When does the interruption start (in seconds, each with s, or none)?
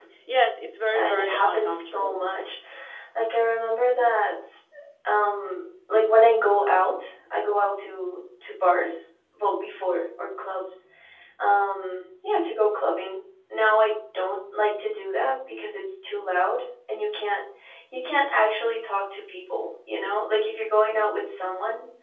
0.9 s